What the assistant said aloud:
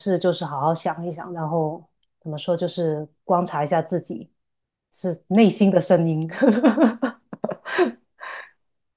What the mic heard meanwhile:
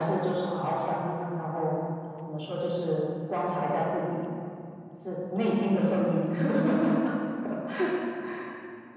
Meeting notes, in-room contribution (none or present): none